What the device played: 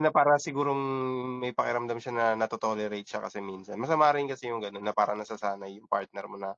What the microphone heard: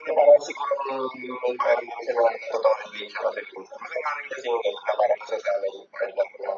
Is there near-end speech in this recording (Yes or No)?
No